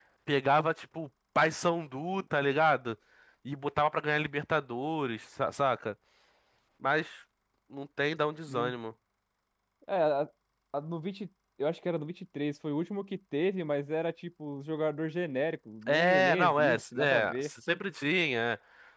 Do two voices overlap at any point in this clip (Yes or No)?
Yes